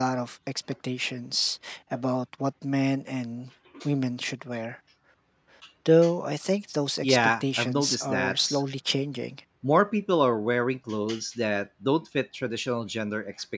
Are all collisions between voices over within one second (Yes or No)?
No